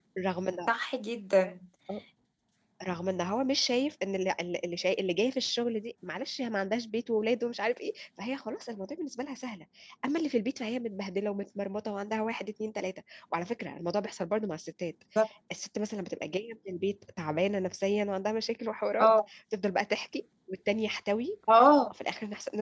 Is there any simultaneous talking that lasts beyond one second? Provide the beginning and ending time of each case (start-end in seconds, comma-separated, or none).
none